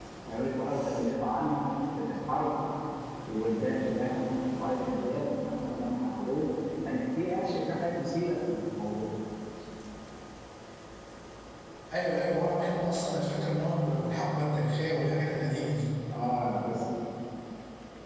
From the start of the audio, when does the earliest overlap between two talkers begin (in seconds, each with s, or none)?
none